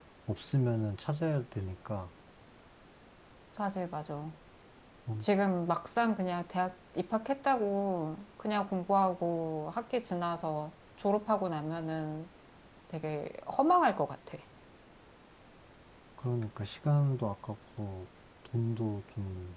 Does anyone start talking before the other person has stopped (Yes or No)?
No